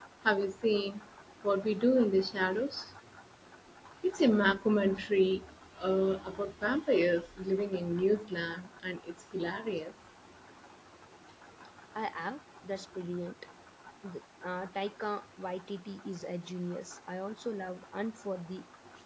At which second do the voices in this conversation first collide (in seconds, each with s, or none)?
none